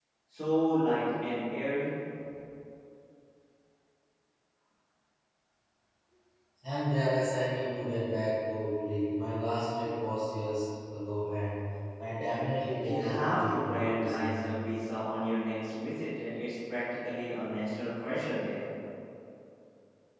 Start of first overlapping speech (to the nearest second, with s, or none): 13 s